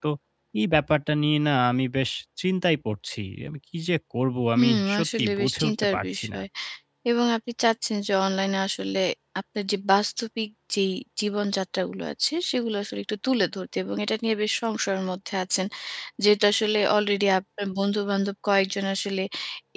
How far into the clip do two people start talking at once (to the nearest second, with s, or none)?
5 s